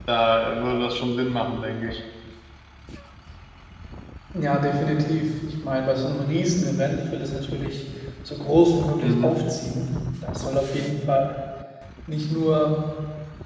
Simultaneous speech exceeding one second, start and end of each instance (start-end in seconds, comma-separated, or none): none